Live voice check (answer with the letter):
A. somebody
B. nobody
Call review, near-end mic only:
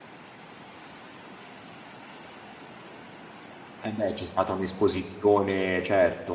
A